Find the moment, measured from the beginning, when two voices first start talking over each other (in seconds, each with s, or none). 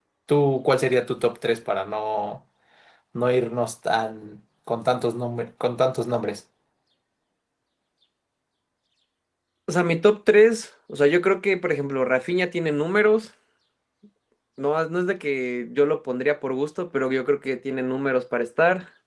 none